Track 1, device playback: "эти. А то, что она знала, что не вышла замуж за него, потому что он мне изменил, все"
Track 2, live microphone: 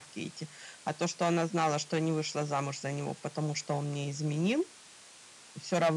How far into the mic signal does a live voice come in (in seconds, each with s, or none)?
none